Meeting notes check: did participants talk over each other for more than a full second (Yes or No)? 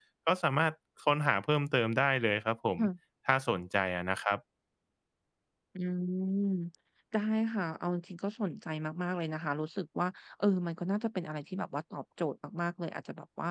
No